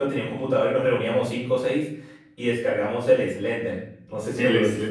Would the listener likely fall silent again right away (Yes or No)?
No